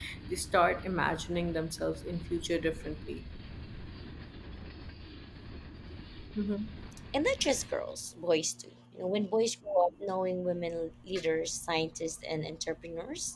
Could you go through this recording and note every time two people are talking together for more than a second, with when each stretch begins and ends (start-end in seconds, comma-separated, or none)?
none